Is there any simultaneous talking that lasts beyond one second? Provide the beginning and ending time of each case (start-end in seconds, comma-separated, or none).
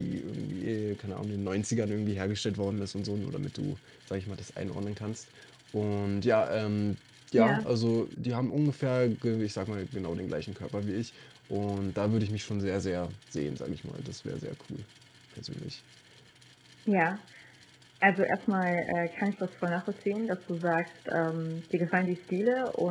none